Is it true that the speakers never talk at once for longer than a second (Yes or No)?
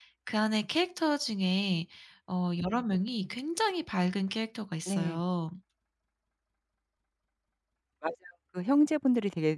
Yes